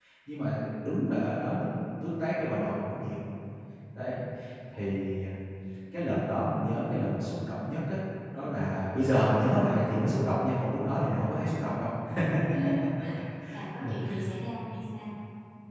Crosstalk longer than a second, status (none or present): none